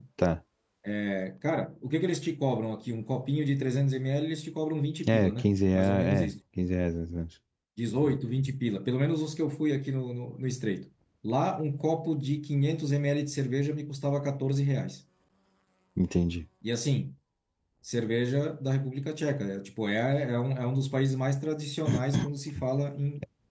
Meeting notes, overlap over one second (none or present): present